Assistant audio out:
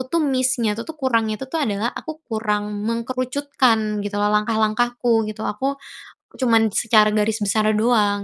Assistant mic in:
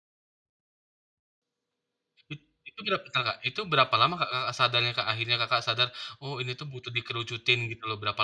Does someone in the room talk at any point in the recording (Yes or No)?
Yes